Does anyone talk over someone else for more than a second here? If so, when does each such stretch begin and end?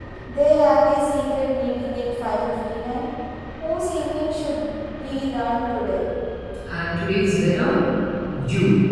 none

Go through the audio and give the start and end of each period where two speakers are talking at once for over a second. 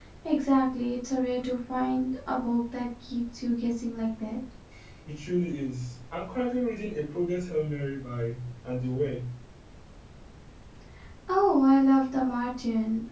none

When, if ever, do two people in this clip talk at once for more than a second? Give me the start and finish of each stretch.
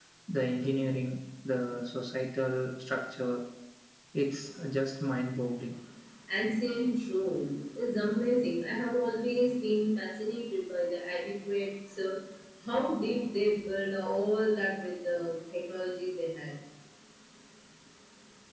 none

